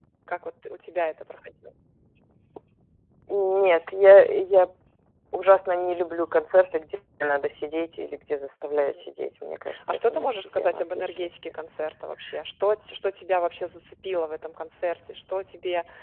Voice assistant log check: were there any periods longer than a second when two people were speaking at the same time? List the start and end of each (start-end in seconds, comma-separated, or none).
9.9-11.3